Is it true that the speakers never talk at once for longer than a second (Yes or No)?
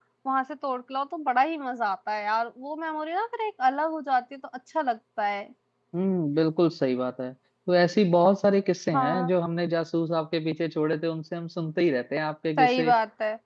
Yes